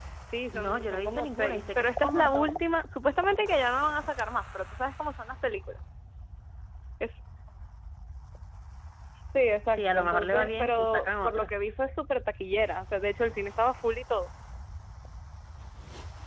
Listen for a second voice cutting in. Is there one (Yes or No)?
Yes